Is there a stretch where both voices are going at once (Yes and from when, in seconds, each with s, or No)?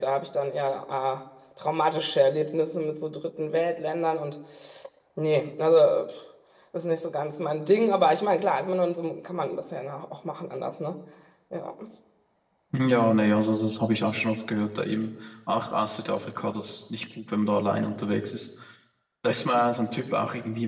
No